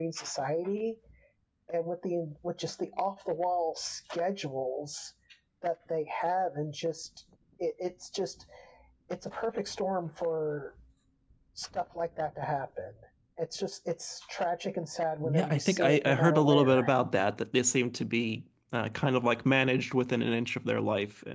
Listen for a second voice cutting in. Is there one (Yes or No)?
Yes